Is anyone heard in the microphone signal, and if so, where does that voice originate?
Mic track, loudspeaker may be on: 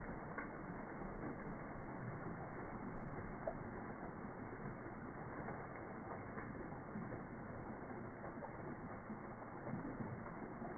neither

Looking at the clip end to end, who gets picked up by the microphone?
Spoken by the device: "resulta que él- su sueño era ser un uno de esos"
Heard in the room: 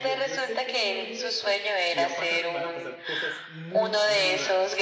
both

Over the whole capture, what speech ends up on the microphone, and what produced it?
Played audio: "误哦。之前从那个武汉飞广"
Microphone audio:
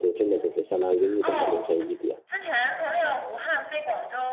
both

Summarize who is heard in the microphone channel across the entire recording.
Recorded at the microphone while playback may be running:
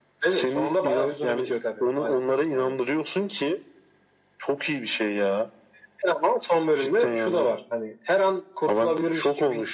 echo only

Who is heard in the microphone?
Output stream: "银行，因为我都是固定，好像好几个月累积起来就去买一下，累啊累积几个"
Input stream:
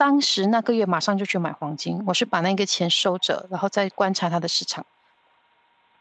user only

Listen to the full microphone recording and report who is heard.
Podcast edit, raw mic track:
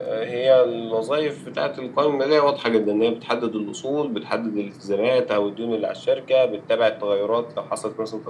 echo only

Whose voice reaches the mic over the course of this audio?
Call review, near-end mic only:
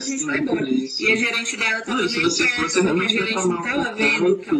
echo only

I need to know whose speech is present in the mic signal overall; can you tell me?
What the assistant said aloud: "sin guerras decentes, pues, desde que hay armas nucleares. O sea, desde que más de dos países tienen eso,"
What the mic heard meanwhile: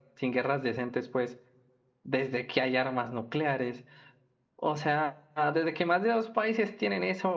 echo only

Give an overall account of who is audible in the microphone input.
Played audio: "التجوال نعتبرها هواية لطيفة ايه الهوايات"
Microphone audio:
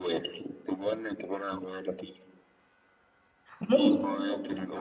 both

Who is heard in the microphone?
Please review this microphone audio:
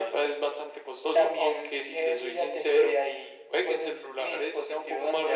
echo only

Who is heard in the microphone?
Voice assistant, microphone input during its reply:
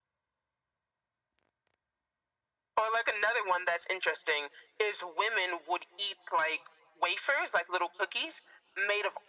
echo only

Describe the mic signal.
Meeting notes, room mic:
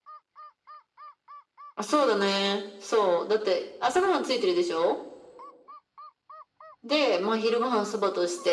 echo only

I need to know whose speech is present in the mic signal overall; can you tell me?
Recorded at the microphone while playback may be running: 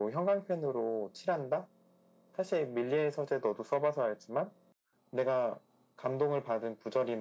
echo only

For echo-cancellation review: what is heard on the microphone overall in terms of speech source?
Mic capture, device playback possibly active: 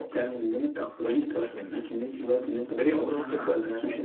echo only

